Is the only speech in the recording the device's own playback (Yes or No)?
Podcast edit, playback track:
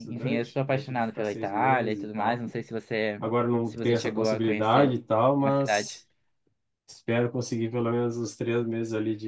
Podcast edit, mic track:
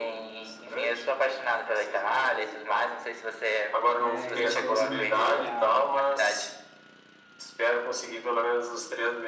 No